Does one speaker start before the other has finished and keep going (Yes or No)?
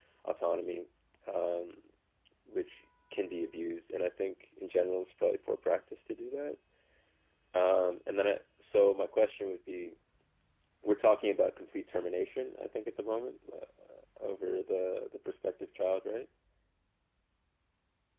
No